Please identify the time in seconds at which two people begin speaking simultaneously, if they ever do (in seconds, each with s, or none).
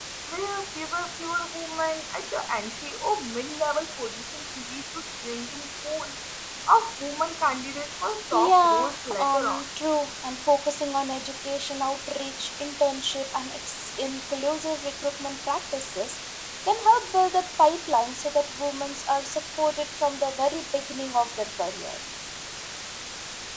8.3 s